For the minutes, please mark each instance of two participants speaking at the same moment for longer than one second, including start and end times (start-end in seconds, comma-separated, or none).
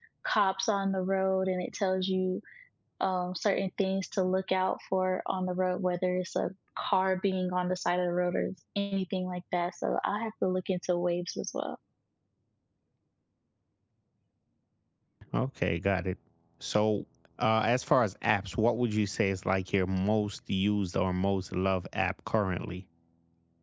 none